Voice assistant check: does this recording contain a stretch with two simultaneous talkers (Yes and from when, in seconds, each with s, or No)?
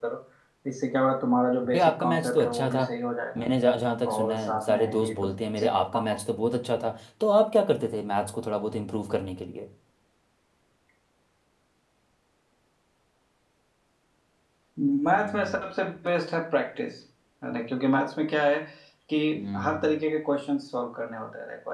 Yes, from 1.6 s